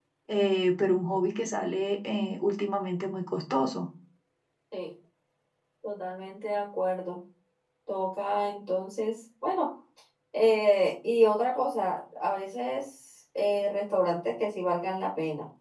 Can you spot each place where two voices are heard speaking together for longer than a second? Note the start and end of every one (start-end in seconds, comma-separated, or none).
none